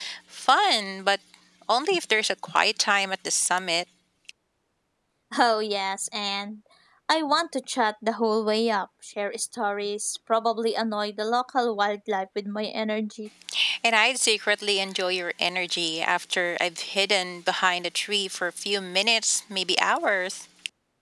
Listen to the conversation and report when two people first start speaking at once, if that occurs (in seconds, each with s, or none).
none